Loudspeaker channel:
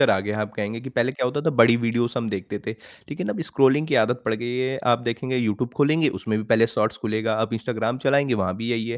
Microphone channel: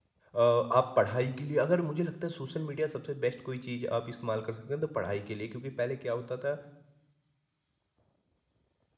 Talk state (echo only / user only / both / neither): user only